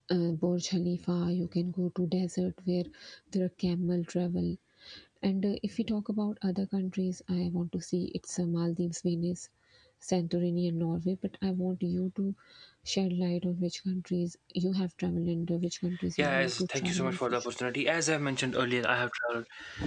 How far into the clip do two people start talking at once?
16.2 s

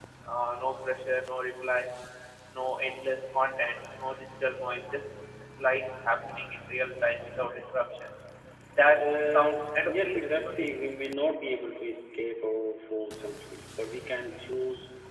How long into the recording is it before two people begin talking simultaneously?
9.0 s

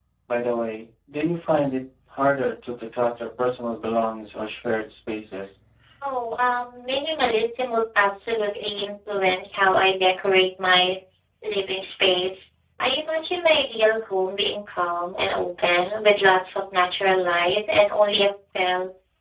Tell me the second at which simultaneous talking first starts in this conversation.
none

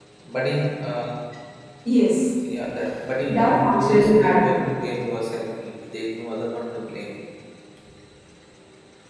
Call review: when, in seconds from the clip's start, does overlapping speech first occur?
3.3 s

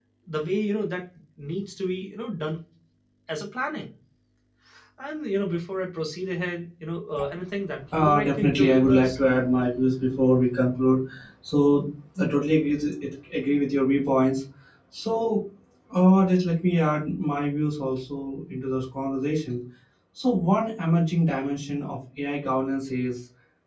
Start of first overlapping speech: 7.9 s

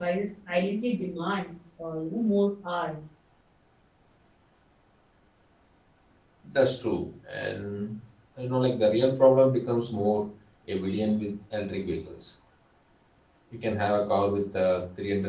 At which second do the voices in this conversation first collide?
none

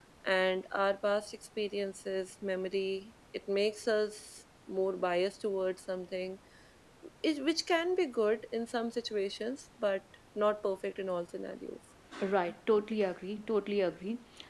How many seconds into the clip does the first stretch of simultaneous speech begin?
none

